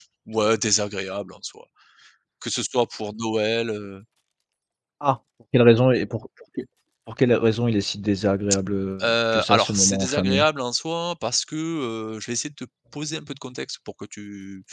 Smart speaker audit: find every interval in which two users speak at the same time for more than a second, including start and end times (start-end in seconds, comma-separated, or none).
9.0-10.4